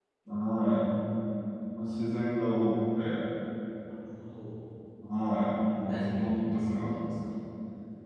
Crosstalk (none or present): present